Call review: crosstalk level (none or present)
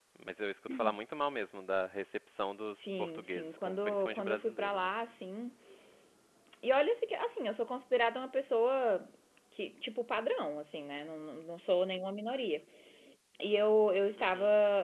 present